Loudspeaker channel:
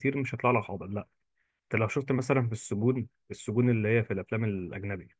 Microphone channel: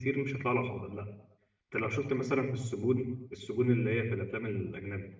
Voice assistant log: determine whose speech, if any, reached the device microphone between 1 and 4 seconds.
echo only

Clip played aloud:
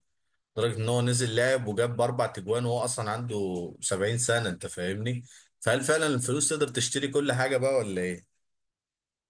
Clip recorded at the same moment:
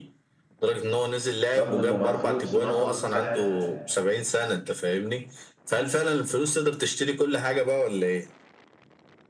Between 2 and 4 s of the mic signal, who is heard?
both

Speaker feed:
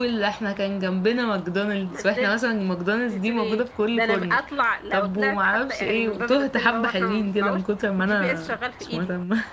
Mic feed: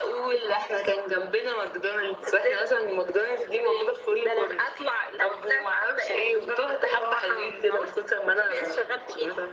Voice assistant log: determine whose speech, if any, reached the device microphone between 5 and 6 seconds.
echo only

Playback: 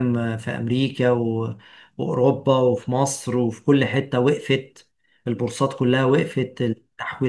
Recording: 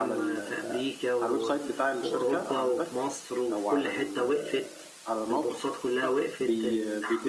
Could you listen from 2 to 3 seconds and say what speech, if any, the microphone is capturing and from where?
both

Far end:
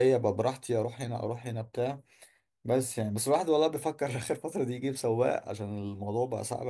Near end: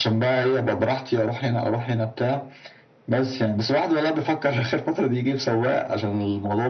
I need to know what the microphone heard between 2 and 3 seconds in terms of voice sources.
echo only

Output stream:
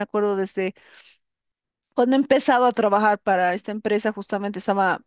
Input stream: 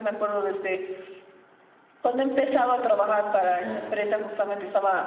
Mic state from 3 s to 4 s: both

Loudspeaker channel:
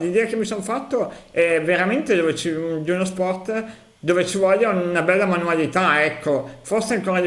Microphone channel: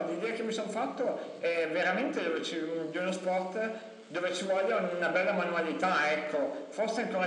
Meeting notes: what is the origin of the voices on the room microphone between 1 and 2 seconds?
echo only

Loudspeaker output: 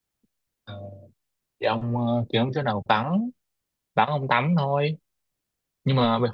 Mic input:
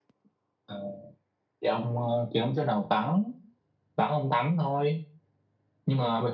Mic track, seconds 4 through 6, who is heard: echo only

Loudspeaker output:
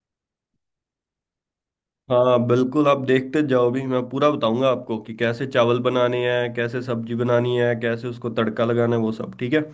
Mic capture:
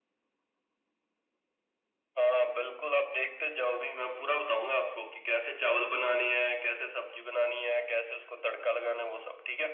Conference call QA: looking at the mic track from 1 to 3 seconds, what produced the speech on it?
echo only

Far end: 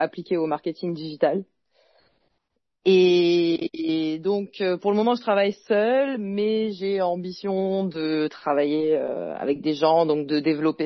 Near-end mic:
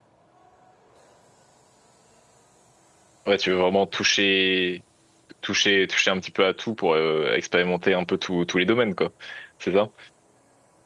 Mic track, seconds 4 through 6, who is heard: user only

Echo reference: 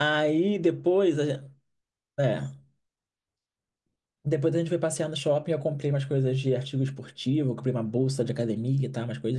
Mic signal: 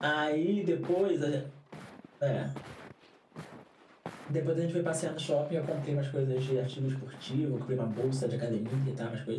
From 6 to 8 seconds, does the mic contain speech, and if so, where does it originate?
echo only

